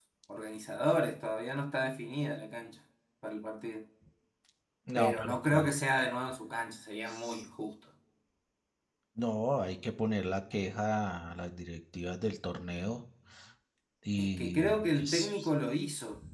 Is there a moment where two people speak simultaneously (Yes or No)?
Yes